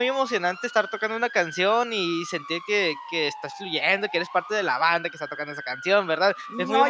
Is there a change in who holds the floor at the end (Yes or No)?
Yes